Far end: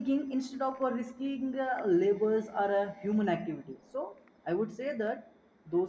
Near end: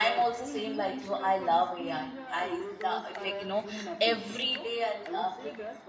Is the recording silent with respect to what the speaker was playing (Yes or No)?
No